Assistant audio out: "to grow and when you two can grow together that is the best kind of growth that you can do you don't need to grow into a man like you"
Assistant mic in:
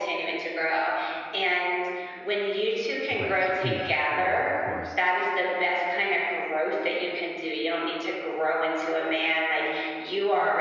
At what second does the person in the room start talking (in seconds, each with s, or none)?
3.1 s